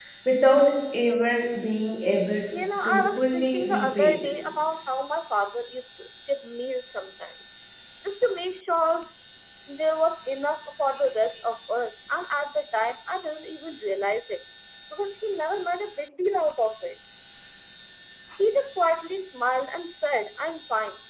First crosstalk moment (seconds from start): 3 s

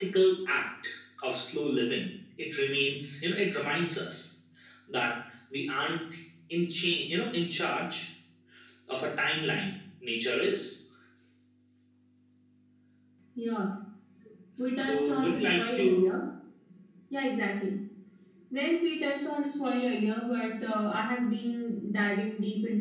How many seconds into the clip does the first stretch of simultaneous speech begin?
15 s

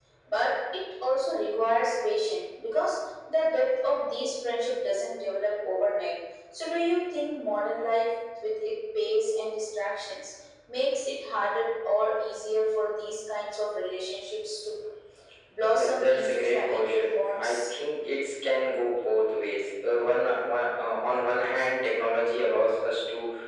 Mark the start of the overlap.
16 s

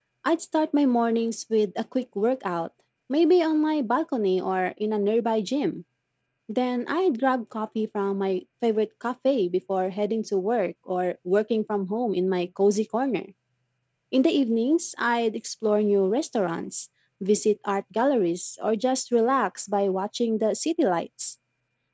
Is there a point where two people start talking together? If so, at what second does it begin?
none

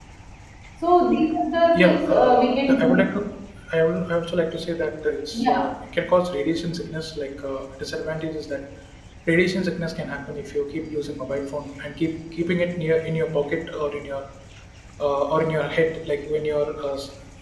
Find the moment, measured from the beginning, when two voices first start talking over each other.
2 s

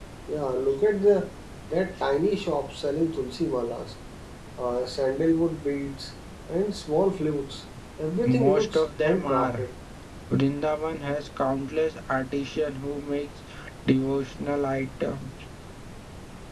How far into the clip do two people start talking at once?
8 s

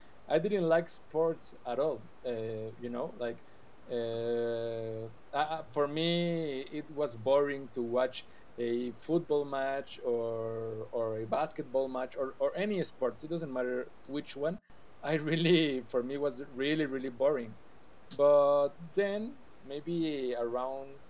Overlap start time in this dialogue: none

